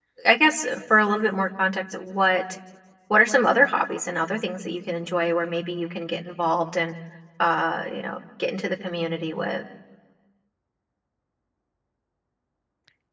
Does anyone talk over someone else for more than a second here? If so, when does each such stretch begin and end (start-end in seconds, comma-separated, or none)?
none